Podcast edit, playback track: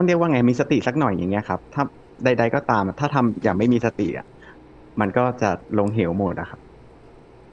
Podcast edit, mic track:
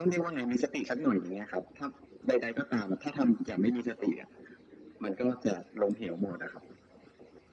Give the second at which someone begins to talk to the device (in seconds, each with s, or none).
none